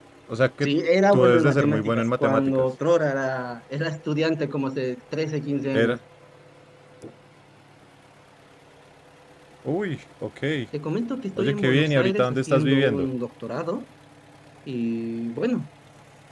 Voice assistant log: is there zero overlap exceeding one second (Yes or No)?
No